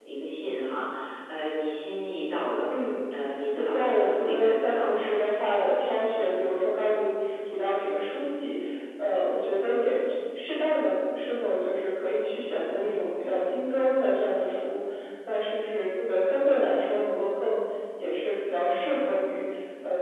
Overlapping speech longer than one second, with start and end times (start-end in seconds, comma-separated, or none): 3.5-5.1